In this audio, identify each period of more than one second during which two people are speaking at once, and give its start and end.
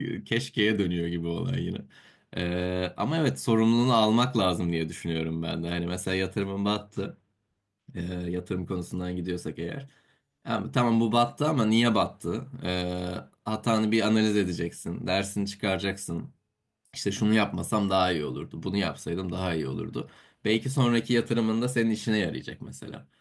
none

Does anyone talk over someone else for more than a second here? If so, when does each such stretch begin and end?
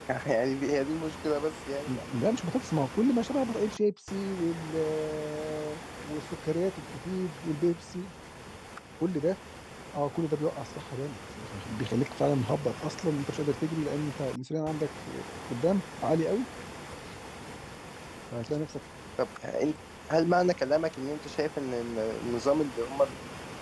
none

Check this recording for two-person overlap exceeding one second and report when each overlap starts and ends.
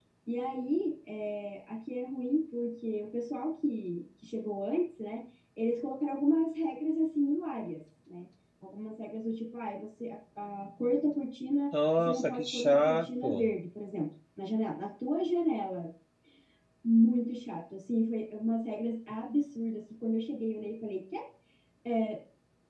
12.0-13.4

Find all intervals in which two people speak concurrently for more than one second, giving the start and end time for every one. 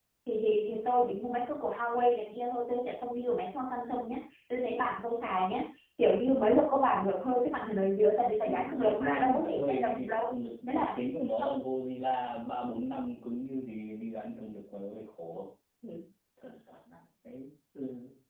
8.4-10.3

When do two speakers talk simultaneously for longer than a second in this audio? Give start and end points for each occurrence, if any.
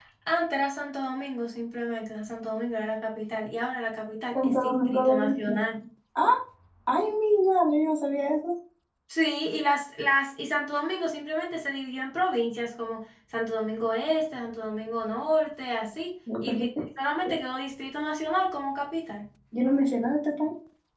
4.4-5.6

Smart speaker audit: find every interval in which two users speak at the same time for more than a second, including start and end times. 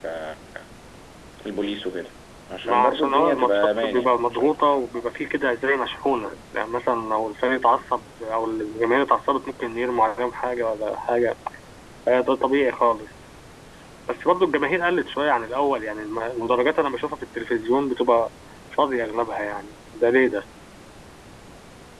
2.6-4.6

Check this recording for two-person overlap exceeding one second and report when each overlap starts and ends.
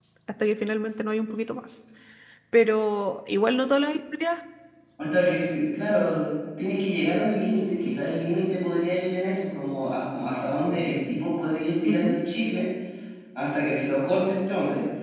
none

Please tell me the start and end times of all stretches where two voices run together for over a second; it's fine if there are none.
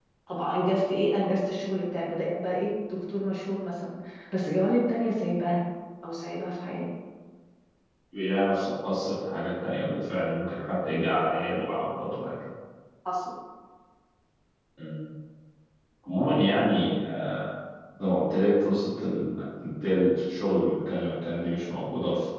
none

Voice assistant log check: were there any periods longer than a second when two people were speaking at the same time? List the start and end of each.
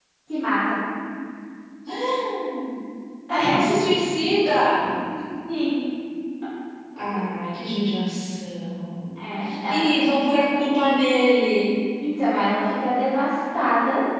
none

